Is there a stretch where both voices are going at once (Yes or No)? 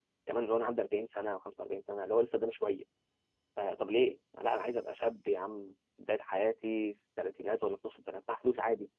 No